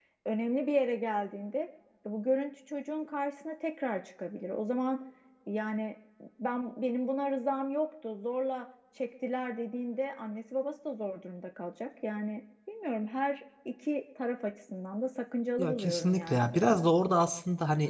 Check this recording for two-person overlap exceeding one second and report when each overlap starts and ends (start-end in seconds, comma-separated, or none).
15.6-16.9